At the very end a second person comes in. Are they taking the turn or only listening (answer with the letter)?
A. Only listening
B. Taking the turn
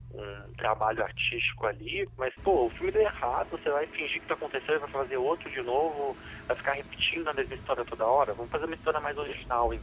A